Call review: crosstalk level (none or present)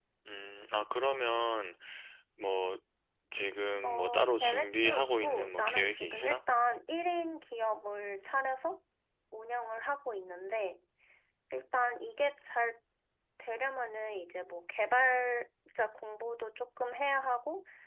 present